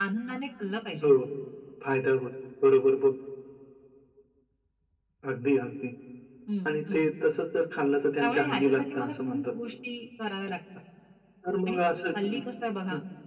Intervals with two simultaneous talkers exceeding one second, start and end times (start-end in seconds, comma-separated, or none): 8.2-9.4